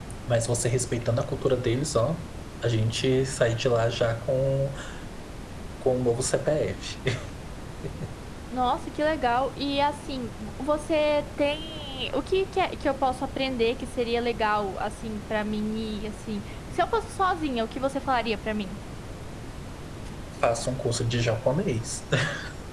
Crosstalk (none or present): none